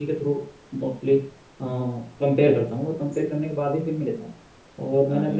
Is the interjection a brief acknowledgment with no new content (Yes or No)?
Yes